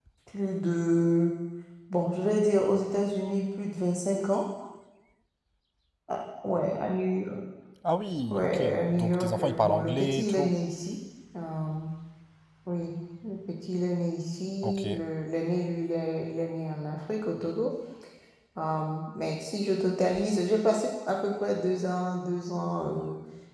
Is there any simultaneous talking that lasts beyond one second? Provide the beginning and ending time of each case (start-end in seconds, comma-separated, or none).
8.3-10.5